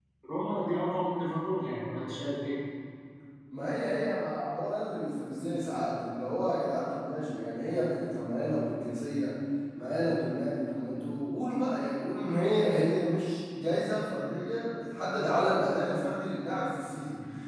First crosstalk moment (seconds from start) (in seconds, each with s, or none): none